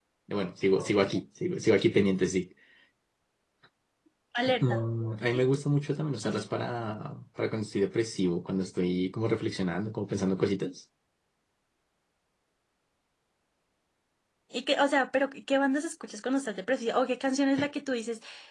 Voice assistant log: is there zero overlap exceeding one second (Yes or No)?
Yes